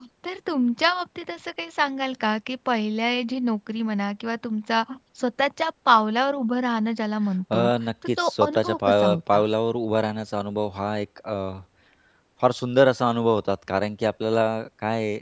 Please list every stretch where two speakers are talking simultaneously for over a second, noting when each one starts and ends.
8.2-9.4

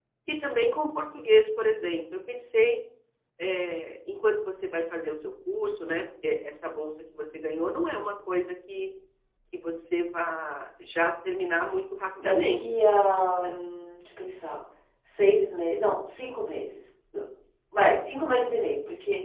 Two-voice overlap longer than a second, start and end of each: 12.2-13.6

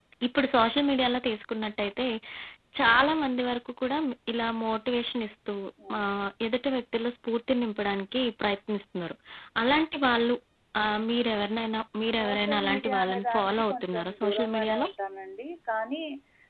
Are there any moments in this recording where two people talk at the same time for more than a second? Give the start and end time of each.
12.1-14.9

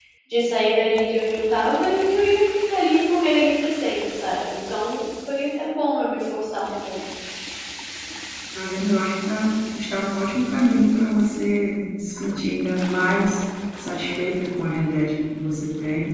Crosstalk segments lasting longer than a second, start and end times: none

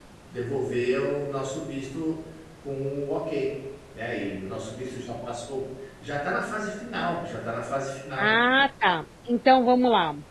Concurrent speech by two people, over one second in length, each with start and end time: none

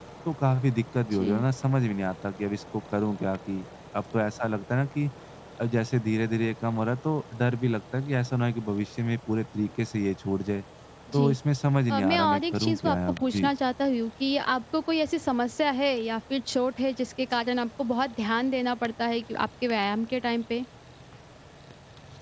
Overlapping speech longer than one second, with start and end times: 11.9-13.5

